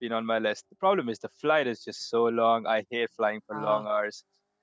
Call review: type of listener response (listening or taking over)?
listening